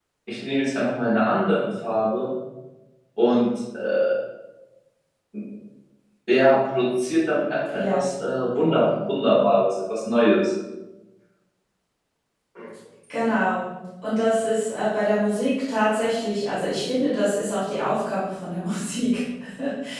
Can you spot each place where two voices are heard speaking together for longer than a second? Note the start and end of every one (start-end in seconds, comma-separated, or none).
none